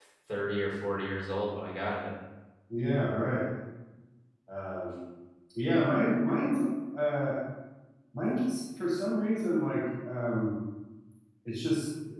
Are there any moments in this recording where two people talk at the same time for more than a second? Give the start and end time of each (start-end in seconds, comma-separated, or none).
none